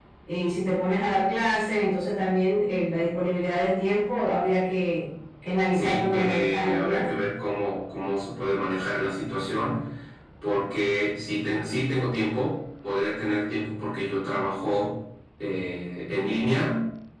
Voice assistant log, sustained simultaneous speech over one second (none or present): present